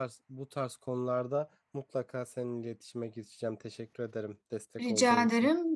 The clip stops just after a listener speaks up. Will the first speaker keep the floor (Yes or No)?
No